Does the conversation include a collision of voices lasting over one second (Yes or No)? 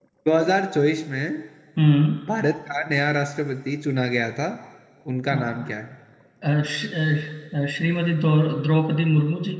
No